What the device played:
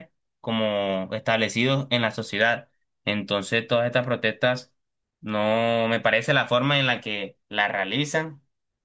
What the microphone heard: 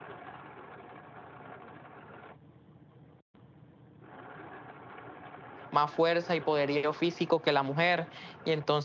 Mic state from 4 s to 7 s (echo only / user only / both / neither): user only